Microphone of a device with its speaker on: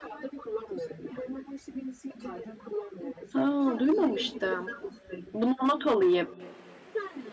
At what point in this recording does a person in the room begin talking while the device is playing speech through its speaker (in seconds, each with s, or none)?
3.3 s